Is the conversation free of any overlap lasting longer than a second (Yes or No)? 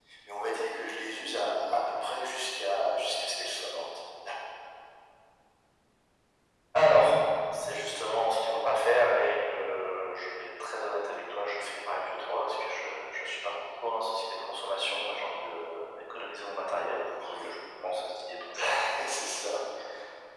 Yes